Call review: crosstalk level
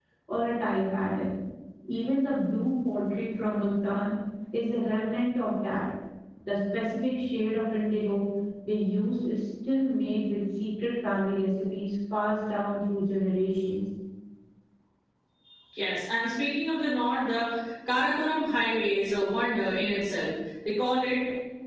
none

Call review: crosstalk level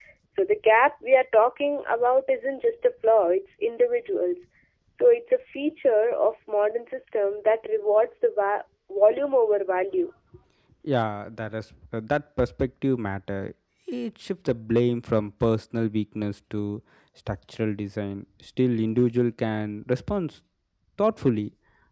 none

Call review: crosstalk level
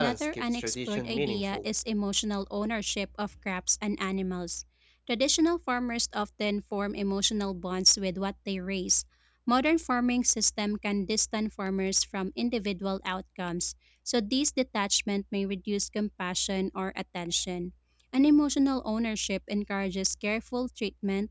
present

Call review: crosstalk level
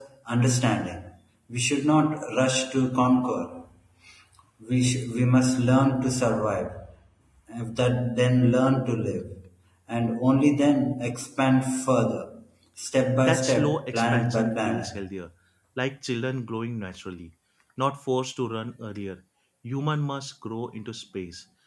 present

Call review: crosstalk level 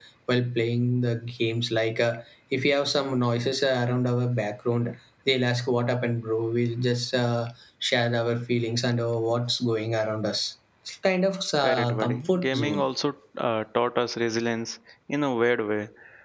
present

